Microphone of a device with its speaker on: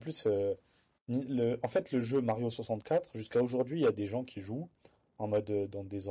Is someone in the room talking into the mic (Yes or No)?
Yes